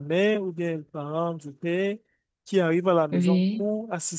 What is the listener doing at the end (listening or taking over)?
listening